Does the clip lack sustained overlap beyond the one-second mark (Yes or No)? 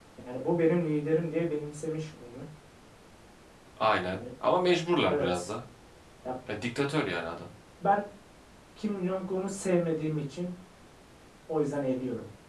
Yes